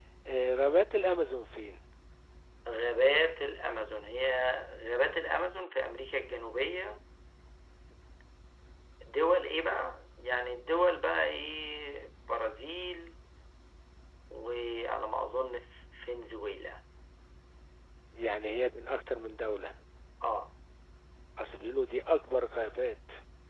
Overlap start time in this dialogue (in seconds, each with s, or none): none